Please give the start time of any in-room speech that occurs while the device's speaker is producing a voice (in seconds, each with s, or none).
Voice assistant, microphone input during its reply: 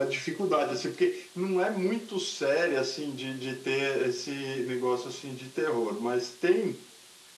none